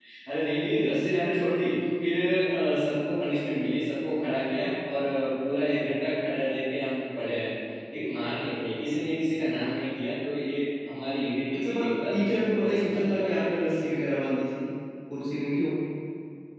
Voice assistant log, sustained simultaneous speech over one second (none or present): present